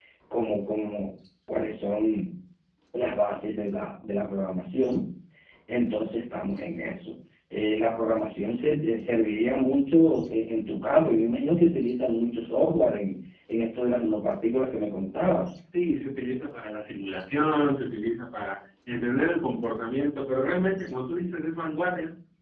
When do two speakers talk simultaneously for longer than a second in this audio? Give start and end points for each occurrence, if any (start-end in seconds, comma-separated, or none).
none